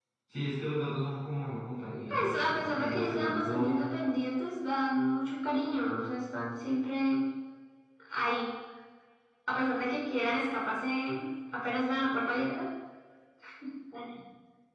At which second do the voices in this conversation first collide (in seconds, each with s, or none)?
2.1 s